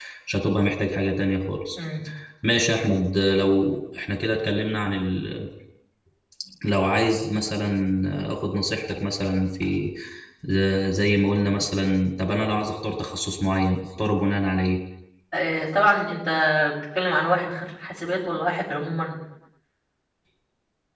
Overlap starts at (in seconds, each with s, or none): none